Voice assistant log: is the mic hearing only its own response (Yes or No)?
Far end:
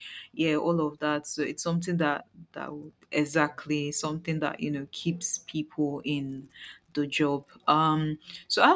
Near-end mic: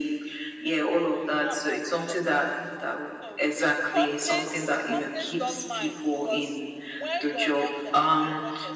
No